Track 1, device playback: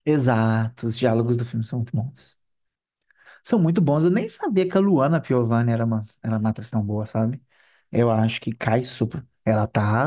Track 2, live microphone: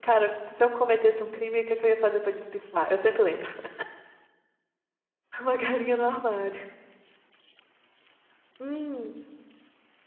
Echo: none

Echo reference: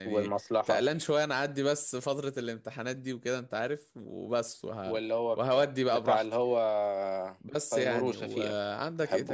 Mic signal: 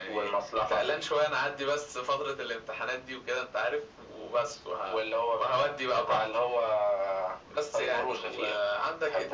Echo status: present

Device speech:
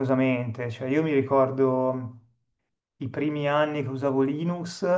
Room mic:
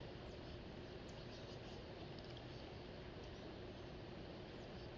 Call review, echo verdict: none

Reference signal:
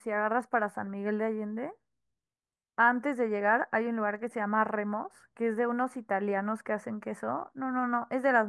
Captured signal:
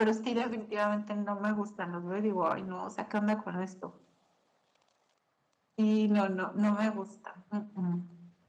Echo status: none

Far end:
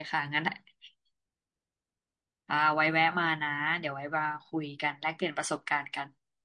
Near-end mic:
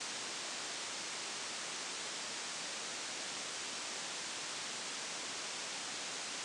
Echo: none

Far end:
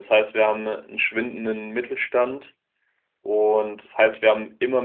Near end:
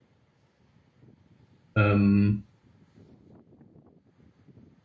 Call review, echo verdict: none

